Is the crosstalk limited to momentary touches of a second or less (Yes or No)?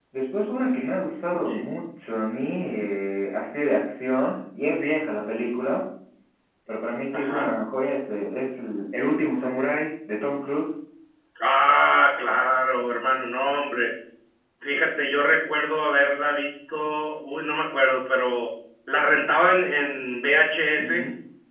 Yes